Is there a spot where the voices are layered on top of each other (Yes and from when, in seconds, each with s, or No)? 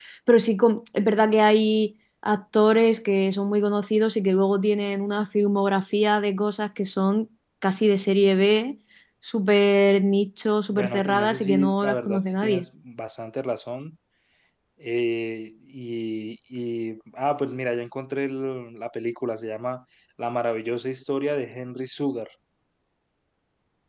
Yes, from 10.7 s